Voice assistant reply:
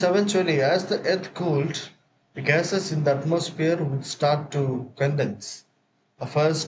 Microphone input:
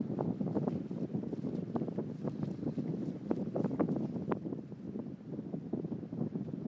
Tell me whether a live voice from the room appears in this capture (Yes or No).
No